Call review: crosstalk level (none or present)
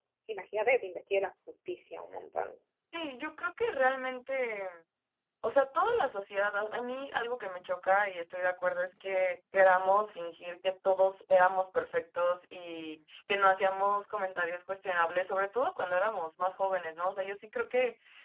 none